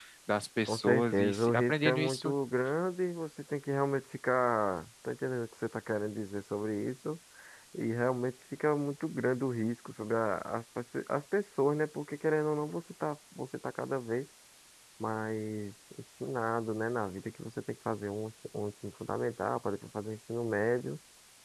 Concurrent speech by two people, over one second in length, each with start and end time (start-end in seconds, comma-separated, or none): 0.7-2.3